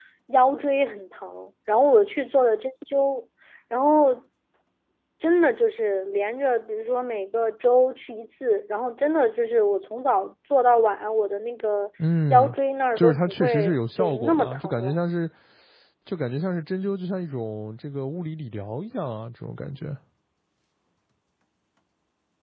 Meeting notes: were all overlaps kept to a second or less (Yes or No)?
No